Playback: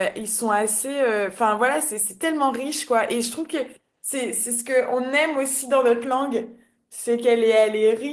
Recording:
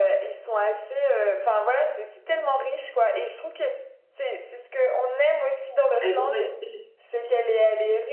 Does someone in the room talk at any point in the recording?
Yes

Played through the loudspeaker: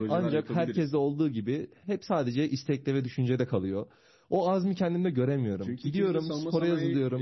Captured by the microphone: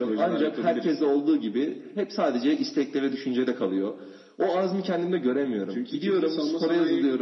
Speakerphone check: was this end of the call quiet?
Yes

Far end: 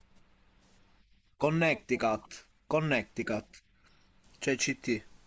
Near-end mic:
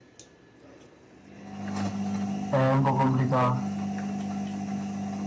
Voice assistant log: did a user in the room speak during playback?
Yes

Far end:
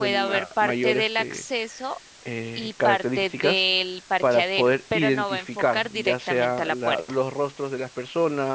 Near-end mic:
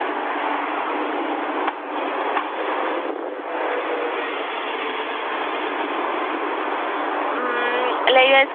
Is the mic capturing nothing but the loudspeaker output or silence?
No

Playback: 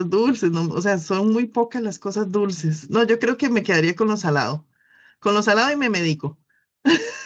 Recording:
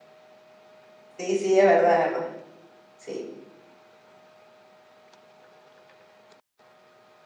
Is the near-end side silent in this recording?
No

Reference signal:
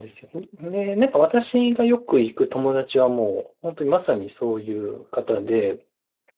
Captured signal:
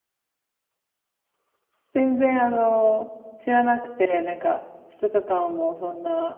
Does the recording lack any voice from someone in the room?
No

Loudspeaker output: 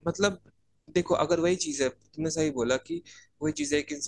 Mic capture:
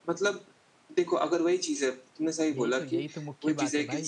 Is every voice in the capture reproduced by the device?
No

